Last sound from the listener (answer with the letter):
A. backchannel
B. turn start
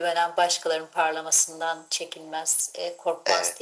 A